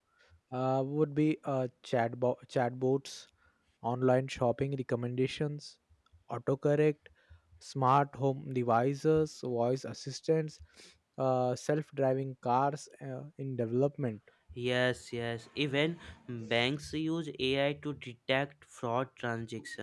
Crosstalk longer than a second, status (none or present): none